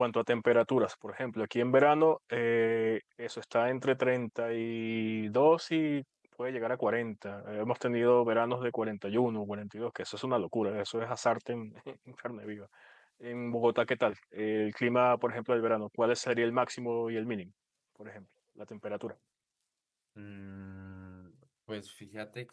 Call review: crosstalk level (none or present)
none